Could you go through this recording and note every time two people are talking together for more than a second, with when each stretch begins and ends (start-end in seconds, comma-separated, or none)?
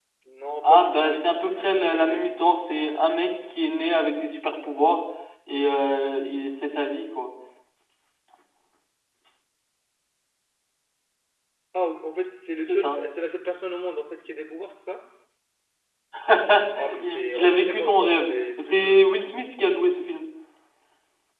0.6-2.2, 17.0-19.0